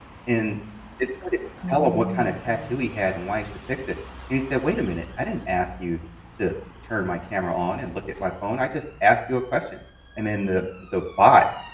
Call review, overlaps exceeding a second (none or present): present